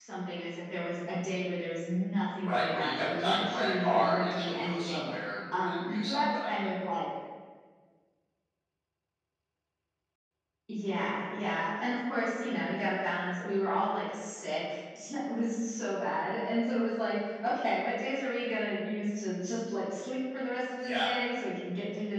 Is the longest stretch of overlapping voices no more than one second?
No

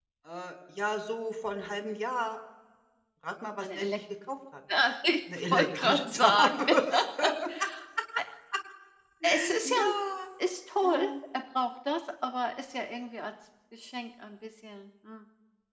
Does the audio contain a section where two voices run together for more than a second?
Yes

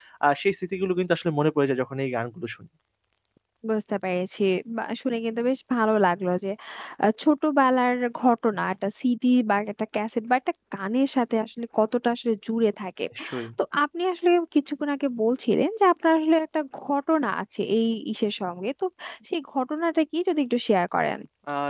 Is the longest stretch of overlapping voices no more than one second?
Yes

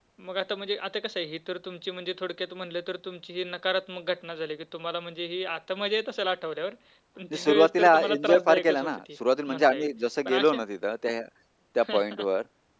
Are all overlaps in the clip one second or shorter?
No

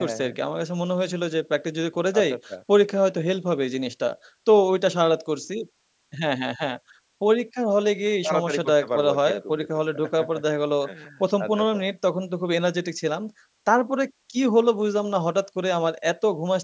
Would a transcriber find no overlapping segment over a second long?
No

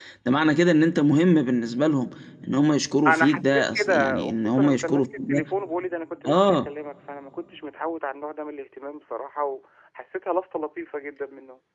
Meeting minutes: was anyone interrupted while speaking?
Yes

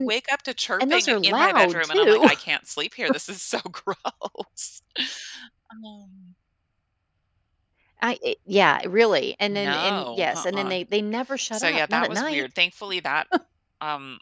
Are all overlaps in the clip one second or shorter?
No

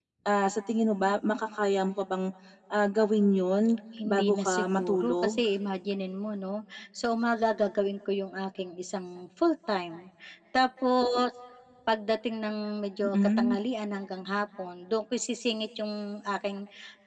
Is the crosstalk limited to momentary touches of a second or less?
No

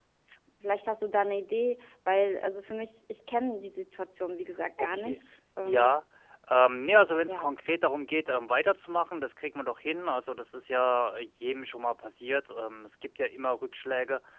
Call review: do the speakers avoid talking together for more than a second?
Yes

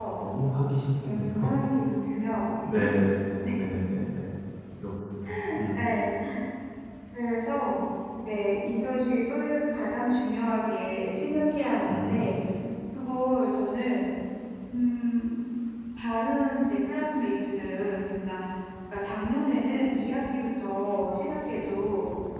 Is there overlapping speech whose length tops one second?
No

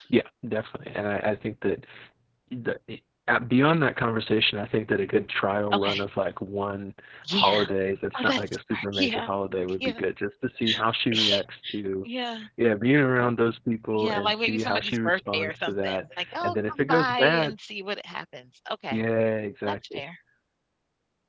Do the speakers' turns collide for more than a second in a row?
Yes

